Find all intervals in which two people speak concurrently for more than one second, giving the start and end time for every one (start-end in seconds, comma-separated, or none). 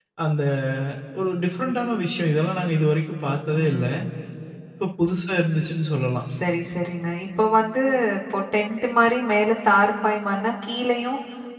none